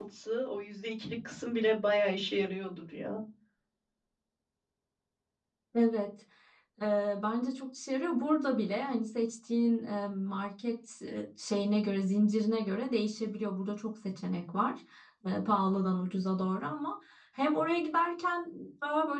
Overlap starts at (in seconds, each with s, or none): none